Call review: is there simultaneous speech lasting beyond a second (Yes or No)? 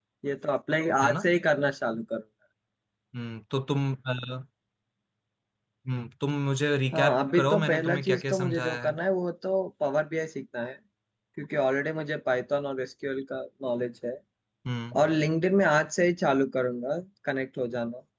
Yes